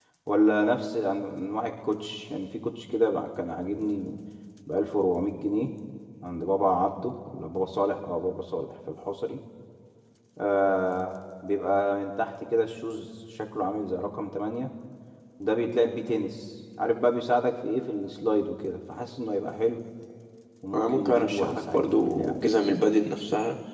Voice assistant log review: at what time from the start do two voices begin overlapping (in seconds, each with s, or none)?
20.7 s